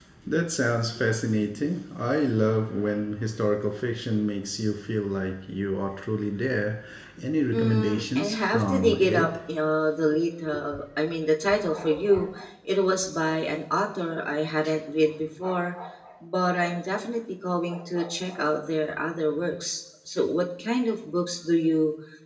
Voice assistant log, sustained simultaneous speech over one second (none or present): present